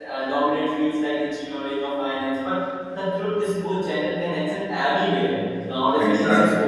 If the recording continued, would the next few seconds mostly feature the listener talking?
No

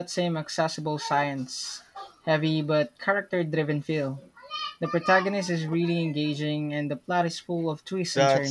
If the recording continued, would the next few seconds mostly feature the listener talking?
Yes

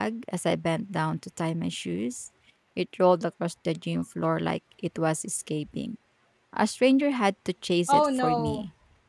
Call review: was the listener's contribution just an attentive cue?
No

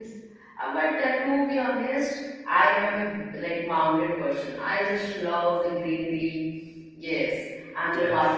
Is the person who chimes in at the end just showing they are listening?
Yes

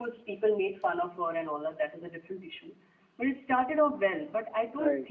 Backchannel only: Yes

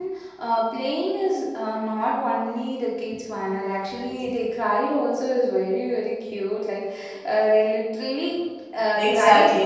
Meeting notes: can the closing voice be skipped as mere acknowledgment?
No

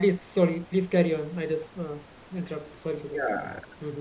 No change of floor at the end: No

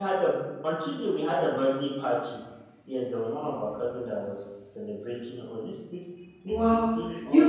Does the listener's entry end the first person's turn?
Yes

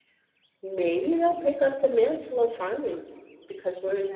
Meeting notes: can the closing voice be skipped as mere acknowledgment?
Yes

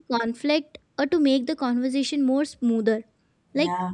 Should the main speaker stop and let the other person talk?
No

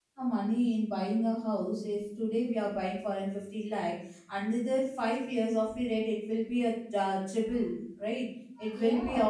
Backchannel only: No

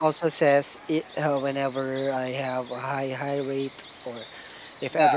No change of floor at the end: Yes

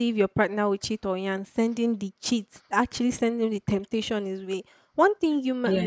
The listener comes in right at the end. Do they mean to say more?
No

